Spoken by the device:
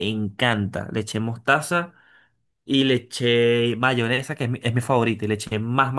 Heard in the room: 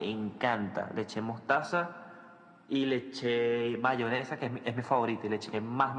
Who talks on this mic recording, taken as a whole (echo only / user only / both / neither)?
echo only